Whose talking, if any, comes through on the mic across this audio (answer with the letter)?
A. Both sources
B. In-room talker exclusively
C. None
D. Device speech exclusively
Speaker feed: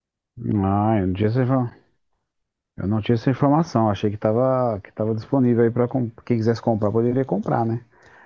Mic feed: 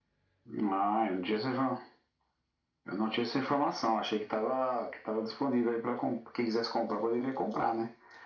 D